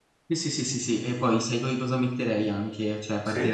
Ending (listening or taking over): listening